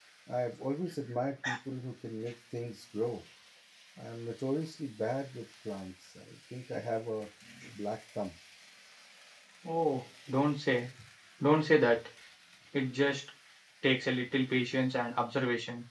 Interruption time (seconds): none

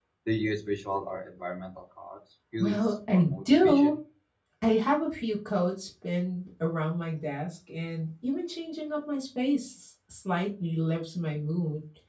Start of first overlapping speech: 3 s

